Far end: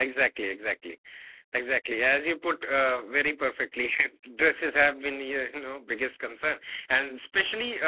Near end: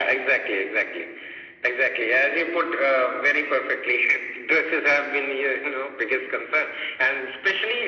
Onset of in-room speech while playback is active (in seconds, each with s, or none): none